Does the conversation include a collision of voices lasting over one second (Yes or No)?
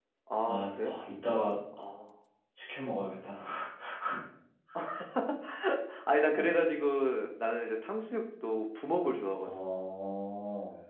No